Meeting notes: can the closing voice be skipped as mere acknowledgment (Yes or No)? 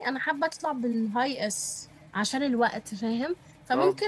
Yes